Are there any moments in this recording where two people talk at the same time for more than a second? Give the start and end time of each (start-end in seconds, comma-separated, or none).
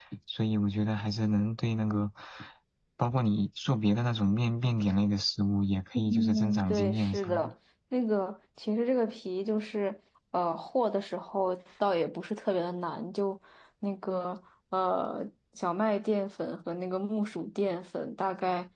5.9-7.4